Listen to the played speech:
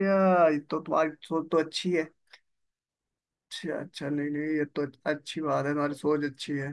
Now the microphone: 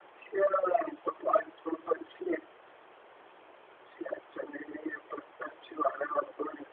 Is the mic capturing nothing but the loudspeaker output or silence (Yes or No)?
Yes